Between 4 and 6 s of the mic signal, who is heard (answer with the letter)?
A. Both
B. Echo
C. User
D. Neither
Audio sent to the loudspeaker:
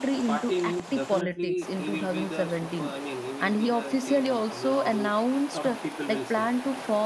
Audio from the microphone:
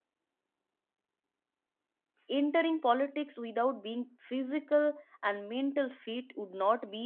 C